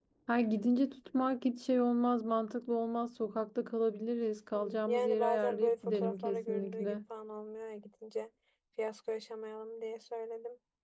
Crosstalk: present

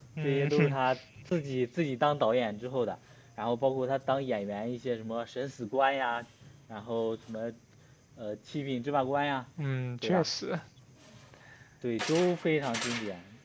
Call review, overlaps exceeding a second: none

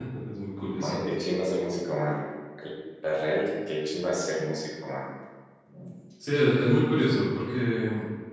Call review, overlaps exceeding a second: none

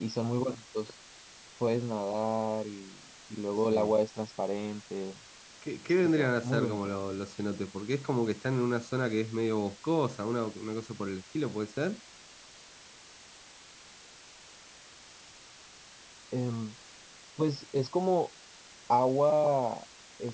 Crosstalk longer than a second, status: present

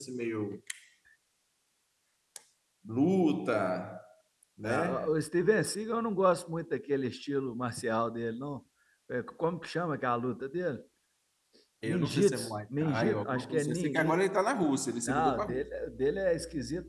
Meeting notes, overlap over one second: present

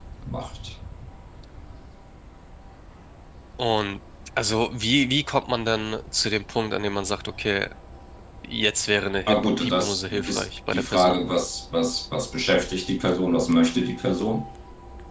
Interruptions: present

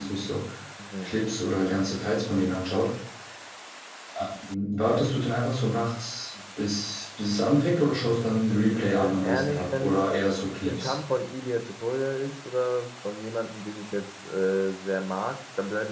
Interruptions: present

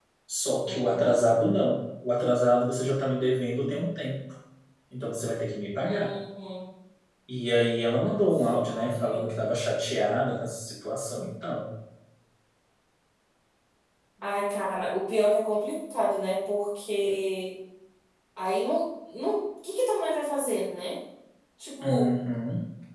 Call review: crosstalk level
present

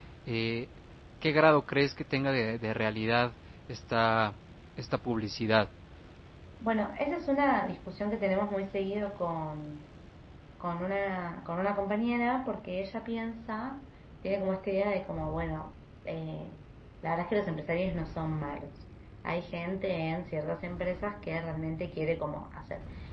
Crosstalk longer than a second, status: none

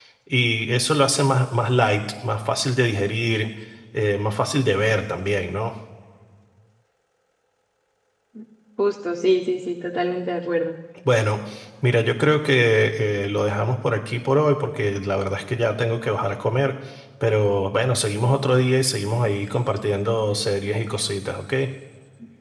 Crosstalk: none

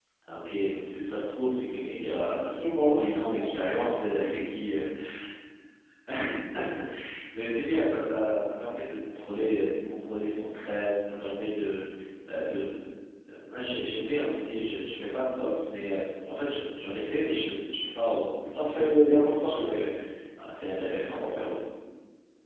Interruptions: present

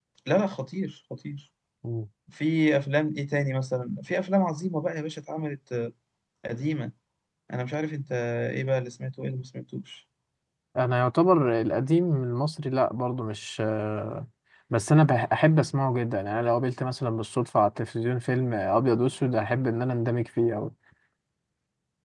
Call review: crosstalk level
none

